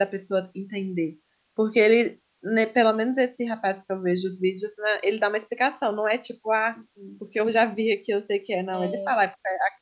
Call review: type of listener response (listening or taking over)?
listening